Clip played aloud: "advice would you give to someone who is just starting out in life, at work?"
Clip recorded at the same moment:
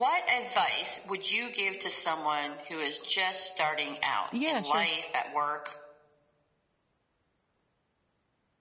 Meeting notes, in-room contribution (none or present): present